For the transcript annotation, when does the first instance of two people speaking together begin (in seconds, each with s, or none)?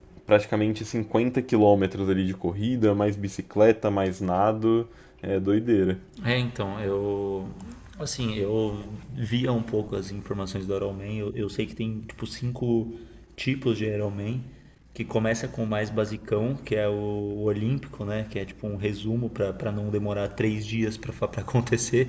none